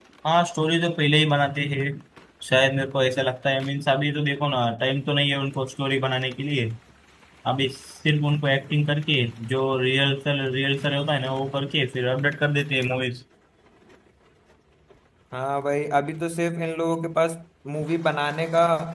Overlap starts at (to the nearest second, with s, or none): none